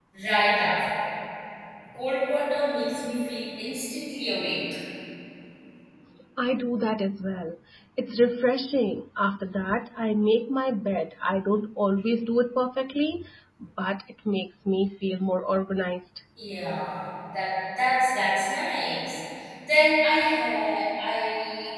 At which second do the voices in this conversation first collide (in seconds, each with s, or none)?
none